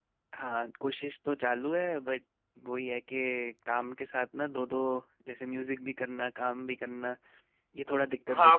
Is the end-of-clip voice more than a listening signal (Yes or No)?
Yes